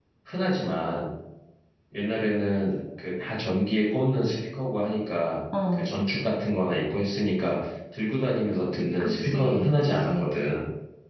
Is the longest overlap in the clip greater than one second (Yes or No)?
Yes